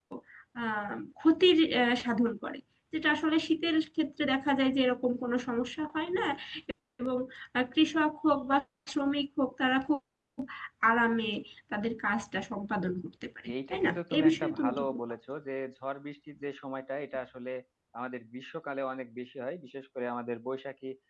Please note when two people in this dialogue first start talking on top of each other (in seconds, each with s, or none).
13.5 s